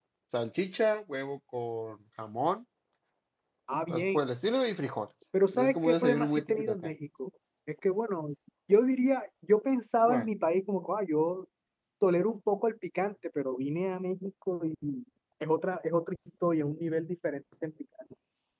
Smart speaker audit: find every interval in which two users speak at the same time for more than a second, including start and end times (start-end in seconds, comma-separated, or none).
5.5-6.9